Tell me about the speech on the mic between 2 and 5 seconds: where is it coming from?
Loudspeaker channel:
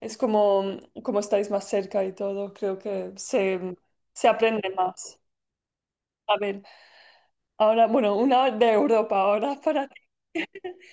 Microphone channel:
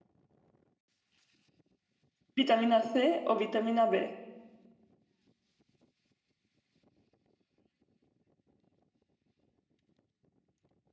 user only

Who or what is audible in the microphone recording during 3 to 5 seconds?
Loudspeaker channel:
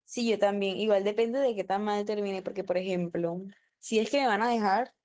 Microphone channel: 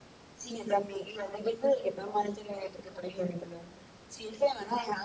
echo only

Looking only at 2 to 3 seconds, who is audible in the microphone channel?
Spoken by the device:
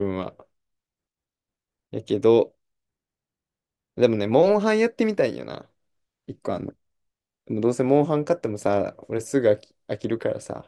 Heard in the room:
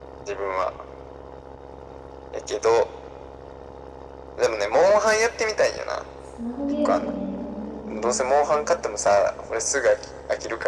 echo only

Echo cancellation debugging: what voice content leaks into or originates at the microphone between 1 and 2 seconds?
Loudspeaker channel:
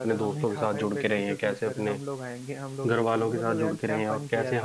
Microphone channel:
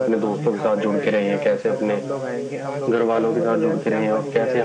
both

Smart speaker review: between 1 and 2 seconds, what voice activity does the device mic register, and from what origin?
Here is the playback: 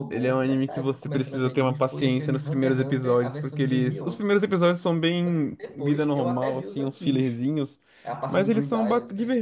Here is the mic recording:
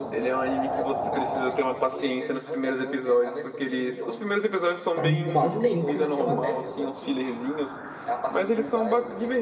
echo only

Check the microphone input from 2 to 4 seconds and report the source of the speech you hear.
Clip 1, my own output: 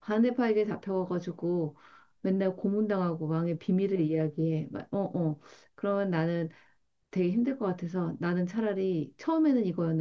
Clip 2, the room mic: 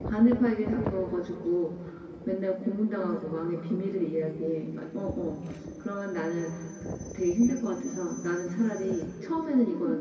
echo only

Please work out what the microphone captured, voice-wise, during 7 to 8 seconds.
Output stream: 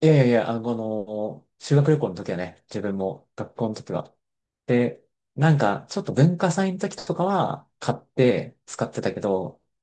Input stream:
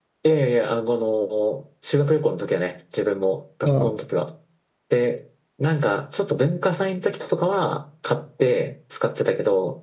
echo only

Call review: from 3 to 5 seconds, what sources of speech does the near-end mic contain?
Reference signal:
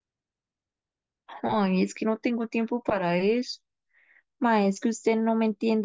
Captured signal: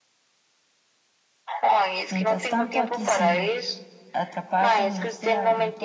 both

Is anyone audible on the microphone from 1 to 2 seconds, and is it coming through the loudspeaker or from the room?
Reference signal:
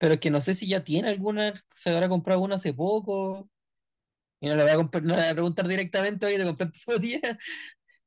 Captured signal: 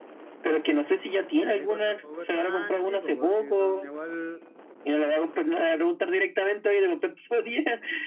both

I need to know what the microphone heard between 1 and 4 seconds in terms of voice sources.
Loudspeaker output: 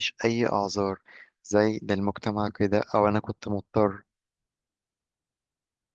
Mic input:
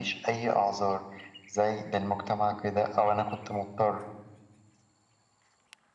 echo only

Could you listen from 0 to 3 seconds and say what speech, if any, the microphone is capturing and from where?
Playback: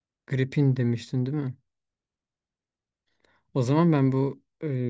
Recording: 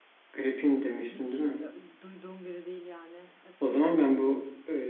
both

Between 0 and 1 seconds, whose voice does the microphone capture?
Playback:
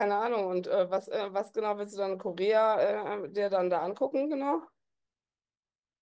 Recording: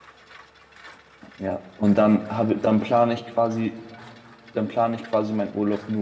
neither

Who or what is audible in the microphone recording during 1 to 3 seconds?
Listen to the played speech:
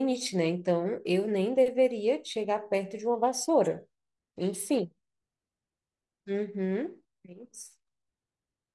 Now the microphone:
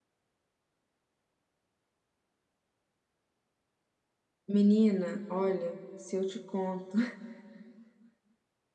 neither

